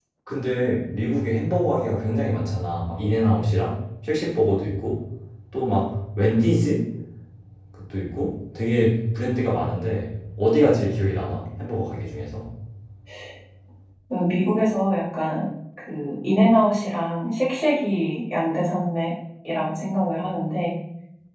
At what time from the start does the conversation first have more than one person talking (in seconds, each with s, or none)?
none